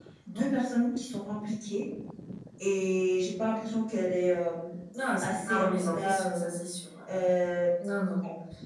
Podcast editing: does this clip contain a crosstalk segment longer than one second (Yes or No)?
Yes